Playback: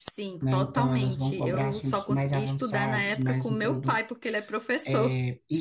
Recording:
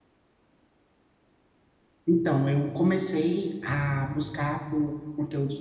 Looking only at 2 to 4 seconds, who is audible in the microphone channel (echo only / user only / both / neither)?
user only